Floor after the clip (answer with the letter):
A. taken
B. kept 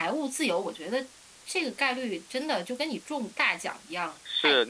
A